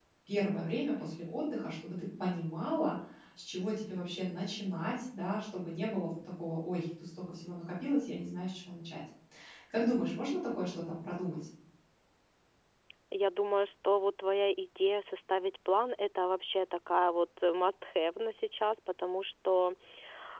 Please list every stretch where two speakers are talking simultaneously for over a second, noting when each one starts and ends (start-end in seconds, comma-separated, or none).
none